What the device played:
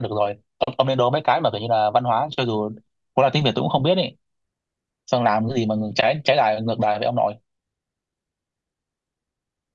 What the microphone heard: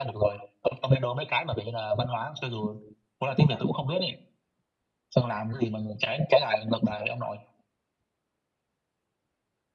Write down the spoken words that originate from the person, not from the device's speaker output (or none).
none